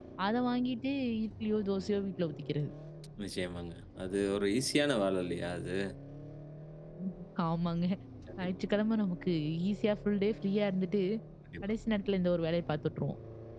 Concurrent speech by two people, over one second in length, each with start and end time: none

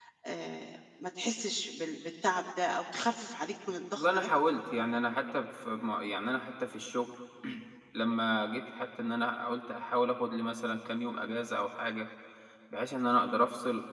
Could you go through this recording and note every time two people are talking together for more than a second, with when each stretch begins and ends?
none

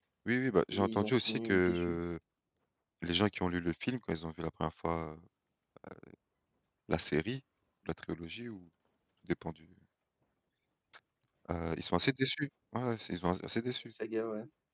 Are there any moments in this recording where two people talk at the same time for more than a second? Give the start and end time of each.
0.7-2.0

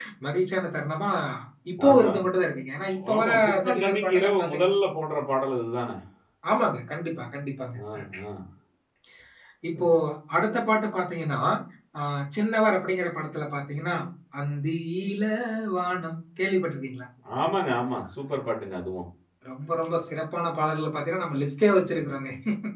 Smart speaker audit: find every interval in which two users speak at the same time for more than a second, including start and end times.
3.1-4.7

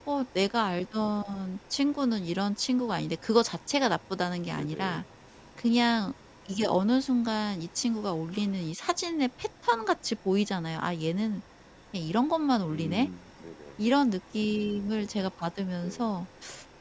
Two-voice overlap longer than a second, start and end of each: none

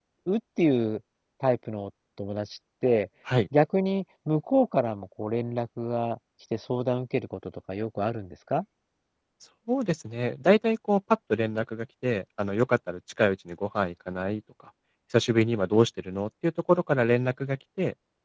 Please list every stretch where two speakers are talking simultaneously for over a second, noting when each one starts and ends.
none

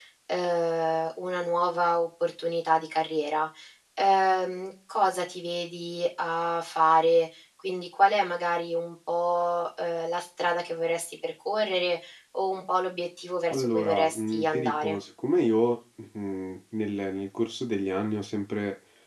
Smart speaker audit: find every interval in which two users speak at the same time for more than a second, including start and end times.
13.5-15.0

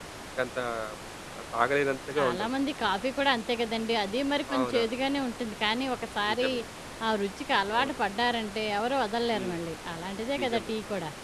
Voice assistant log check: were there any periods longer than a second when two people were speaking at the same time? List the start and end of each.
none

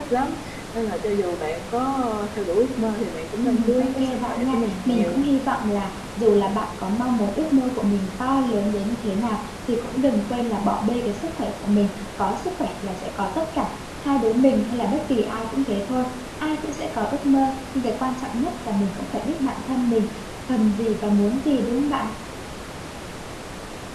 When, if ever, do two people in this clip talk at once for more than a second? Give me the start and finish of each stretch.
3.4-5.2

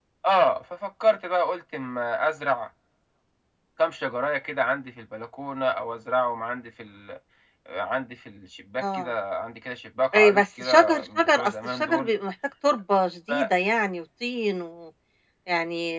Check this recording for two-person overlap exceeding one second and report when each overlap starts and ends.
10.1-12.1

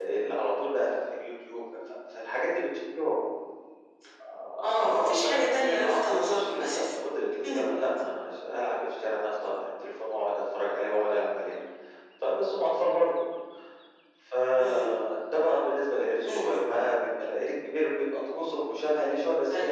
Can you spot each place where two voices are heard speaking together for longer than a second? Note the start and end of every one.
4.8-6.9

